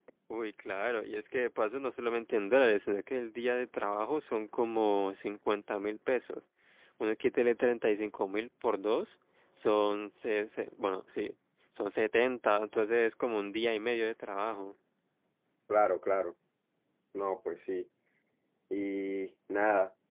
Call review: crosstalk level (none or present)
none